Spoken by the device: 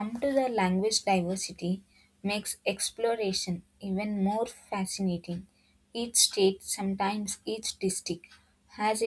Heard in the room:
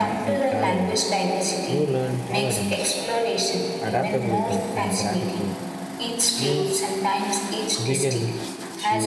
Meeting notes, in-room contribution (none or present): present